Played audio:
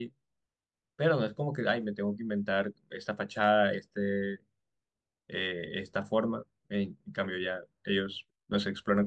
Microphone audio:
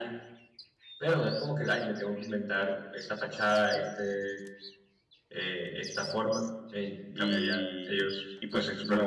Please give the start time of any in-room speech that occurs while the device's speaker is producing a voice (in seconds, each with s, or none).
7.1 s